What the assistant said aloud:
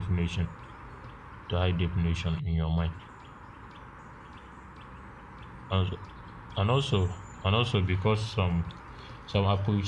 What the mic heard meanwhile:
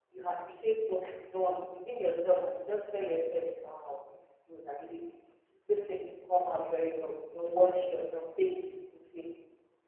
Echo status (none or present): none